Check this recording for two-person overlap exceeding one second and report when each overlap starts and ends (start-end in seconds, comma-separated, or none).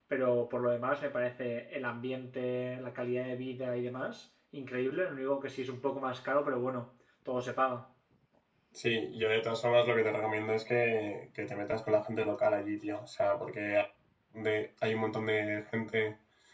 none